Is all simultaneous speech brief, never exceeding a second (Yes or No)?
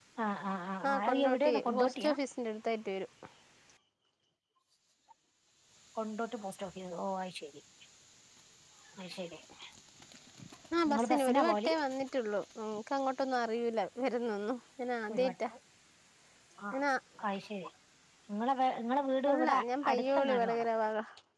No